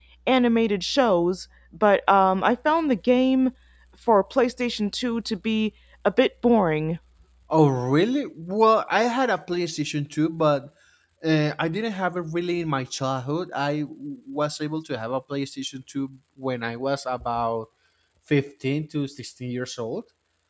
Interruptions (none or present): none